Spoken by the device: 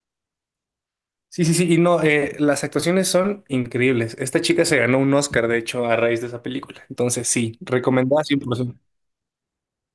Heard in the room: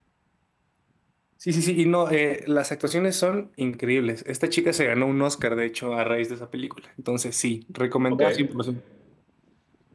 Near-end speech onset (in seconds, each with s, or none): 8.1 s